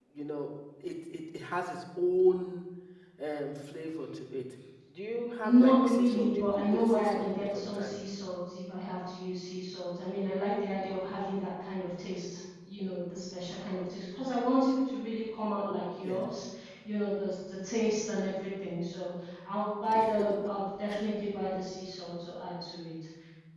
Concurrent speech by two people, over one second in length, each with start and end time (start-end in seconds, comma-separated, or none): 5.4-7.9